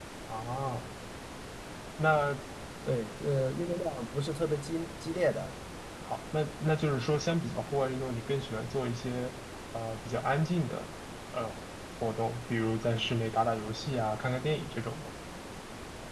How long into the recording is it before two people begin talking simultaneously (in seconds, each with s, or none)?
none